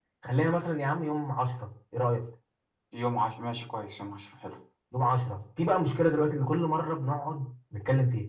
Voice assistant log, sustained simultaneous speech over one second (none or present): none